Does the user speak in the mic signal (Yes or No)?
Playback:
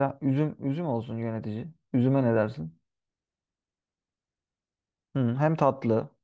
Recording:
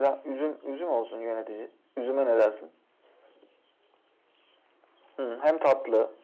No